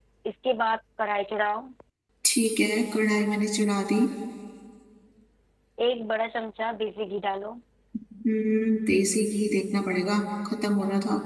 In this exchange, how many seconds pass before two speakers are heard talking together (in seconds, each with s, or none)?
none